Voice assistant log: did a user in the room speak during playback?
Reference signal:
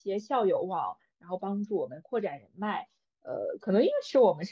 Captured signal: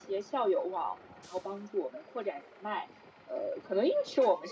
No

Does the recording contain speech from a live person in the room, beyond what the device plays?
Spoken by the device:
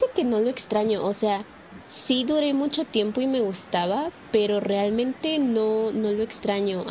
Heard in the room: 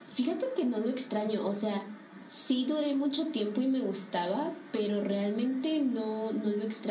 No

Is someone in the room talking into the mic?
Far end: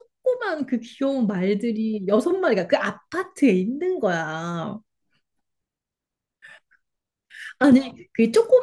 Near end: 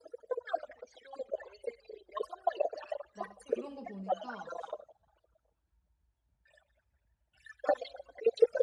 Yes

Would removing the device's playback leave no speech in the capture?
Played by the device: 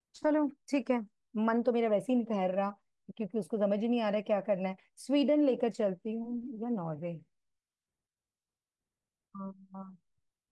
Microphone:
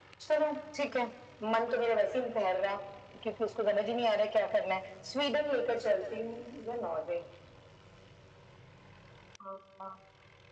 Yes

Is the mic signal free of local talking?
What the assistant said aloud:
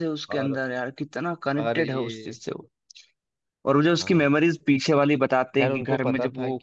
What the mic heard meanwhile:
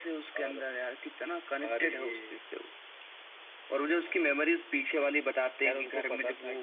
Yes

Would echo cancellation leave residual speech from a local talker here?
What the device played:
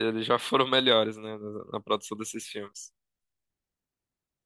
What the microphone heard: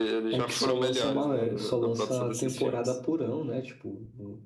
Yes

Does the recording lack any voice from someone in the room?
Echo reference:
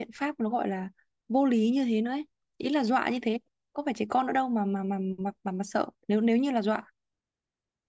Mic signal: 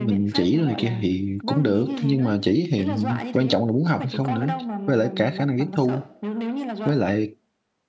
No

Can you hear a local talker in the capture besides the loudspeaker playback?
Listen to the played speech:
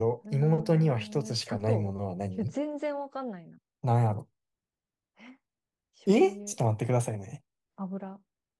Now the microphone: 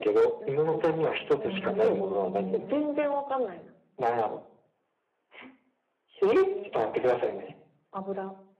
Yes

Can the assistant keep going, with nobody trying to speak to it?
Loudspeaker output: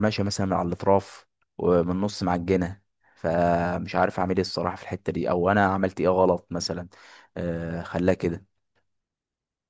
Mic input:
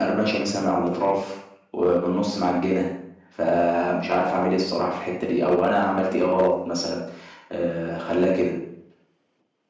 Yes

